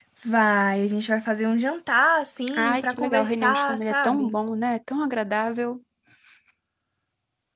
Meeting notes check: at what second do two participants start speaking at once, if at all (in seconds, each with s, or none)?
2.5 s